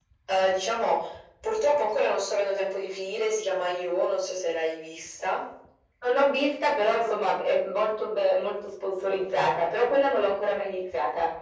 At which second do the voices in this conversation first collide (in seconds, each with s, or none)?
none